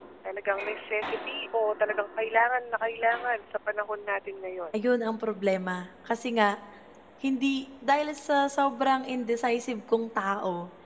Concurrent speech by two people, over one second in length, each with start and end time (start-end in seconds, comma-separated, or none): none